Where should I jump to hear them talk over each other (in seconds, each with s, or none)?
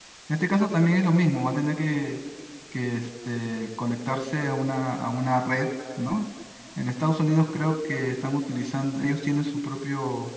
none